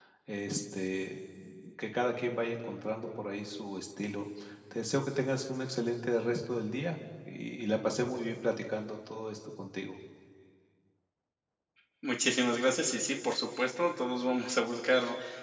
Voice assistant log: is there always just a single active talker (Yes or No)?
Yes